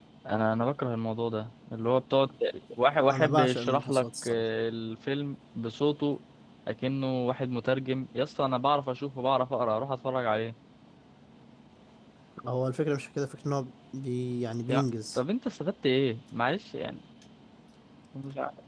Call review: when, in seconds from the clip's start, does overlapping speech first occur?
3.1 s

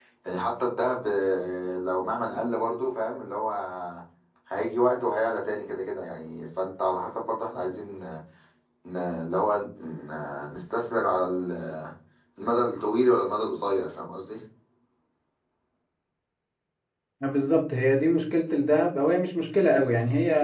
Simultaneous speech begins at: none

